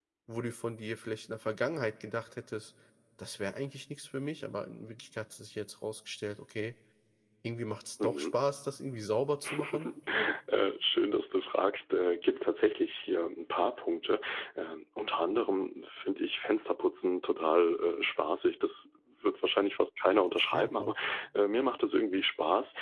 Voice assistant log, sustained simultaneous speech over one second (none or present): none